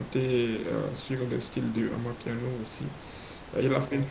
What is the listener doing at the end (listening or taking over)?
listening